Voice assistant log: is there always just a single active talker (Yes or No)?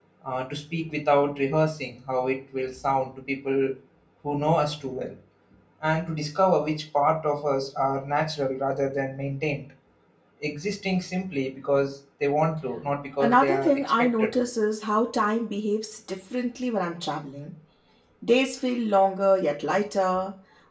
No